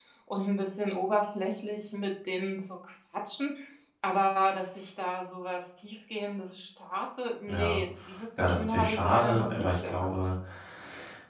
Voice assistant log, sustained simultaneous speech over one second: present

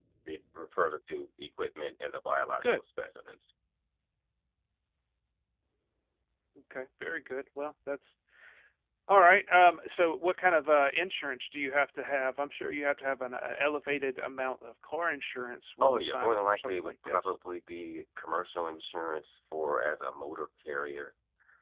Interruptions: present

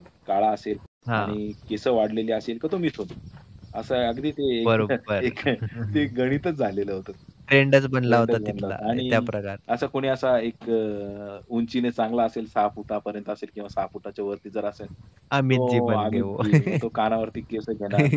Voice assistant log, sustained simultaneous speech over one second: present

